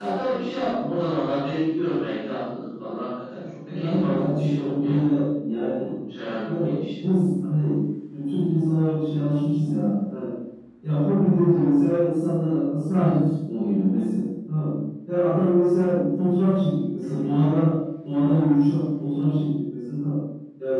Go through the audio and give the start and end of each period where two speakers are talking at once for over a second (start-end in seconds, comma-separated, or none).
3.7-5.0